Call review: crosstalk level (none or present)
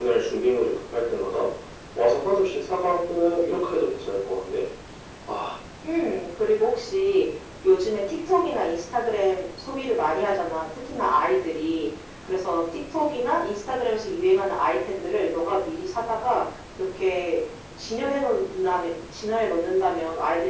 none